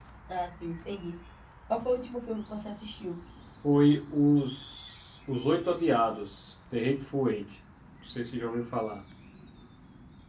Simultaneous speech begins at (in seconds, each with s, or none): none